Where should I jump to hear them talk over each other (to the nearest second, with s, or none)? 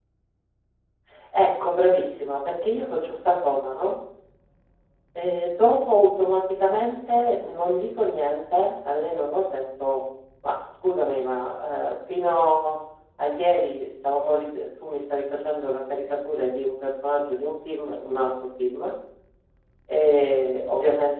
none